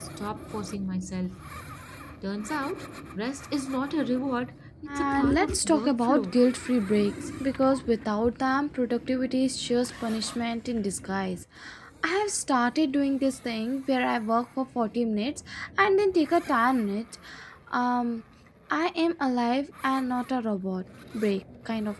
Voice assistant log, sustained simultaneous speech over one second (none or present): present